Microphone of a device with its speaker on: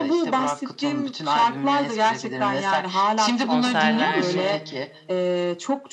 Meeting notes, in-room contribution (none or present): present